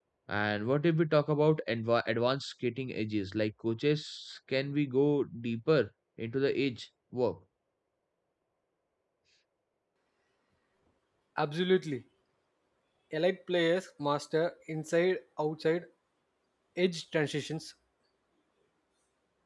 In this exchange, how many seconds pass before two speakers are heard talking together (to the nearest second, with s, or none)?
none